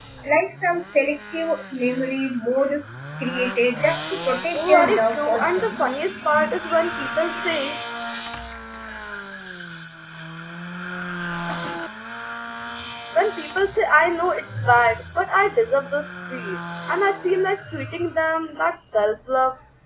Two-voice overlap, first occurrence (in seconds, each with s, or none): 4.5 s